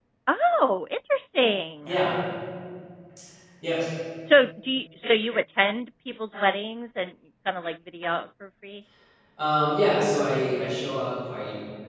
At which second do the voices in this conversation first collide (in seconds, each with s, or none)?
none